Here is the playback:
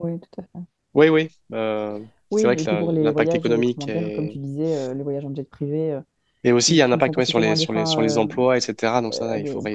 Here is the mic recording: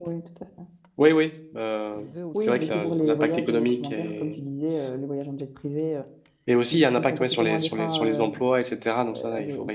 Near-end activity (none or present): present